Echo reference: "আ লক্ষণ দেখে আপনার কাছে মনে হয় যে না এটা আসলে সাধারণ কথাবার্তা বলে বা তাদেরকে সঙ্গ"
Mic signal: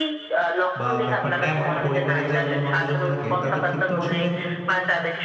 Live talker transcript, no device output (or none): বা ব্যাপারটা এমন পরিবারে যে অন্য মানুষজন থাকে তাদের কিন্তু আসলে